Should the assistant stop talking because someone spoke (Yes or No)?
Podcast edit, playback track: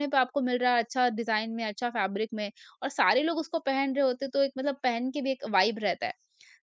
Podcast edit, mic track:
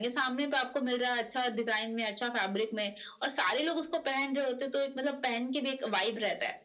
No